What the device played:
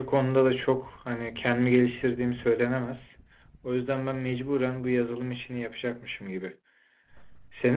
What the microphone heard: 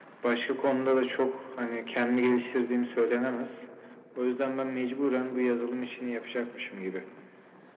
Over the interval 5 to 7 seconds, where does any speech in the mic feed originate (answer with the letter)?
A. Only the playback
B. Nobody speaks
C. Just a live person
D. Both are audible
A